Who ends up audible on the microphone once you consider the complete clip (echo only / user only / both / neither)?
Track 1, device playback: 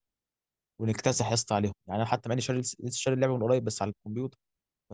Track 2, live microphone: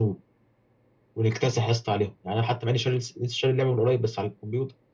echo only